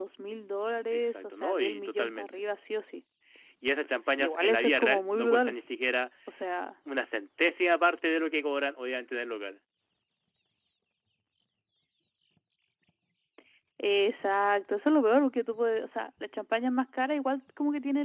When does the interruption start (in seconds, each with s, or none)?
0.9 s